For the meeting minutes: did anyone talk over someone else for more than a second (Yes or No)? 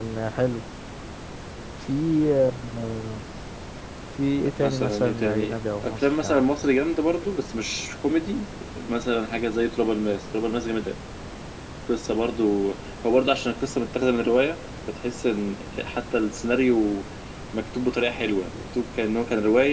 Yes